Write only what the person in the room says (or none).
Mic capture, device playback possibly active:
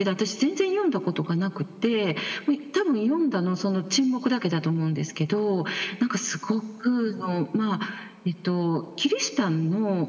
none